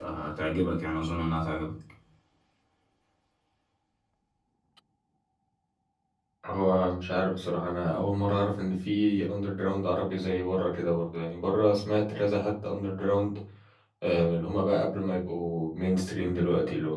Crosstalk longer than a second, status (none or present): none